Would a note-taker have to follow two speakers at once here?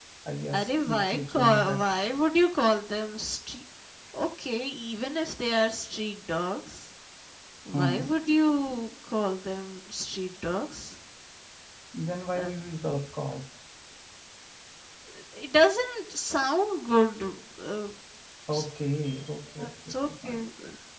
Yes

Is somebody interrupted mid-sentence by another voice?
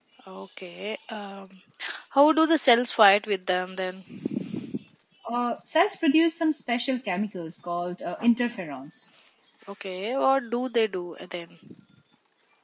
No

